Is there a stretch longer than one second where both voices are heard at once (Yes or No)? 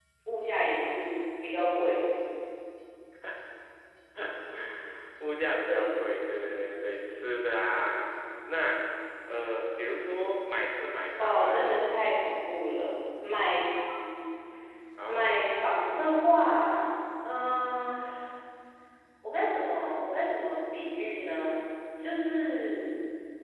No